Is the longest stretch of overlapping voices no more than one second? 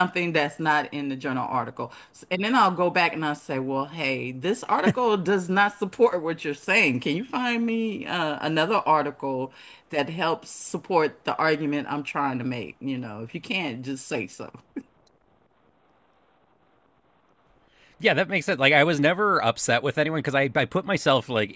Yes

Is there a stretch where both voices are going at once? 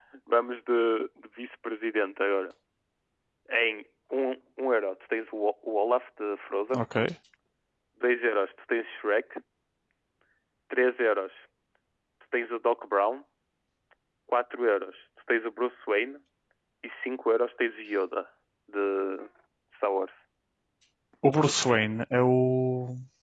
No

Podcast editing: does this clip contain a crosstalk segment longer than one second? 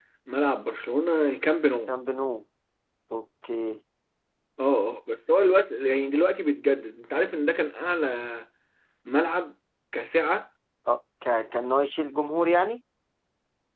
No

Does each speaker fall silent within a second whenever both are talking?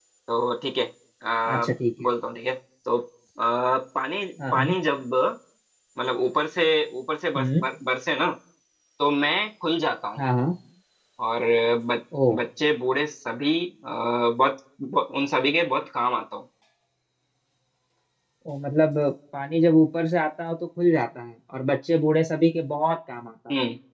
Yes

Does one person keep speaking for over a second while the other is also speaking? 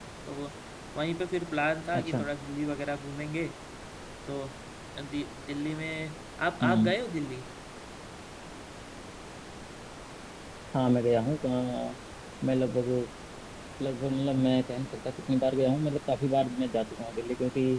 No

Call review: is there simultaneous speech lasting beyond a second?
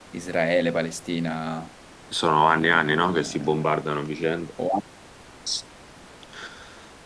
Yes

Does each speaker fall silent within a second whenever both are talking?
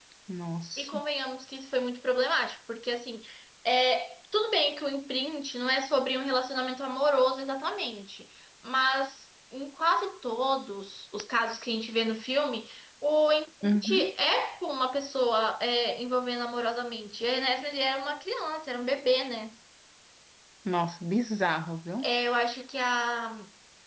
Yes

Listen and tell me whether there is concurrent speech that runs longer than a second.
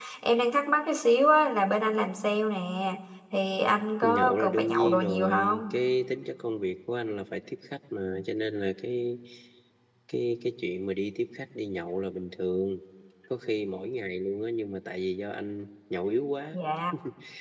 Yes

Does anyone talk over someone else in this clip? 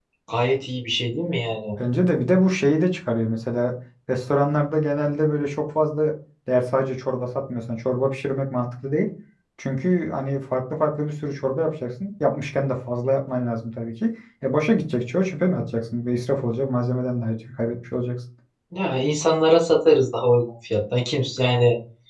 No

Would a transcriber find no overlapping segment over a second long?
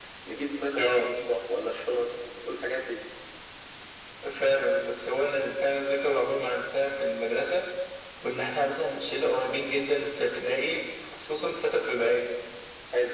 Yes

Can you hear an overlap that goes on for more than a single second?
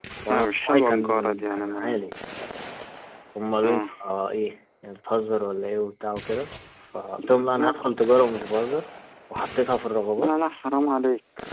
Yes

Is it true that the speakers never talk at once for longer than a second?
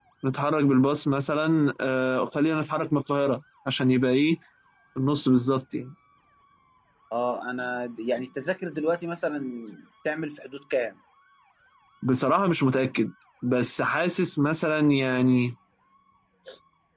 Yes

